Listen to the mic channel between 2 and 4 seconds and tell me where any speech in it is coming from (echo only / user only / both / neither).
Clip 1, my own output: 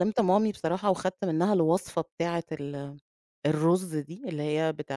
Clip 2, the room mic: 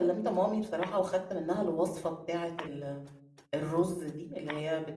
echo only